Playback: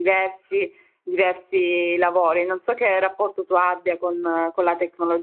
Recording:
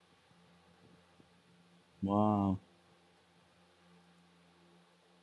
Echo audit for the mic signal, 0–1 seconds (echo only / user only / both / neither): neither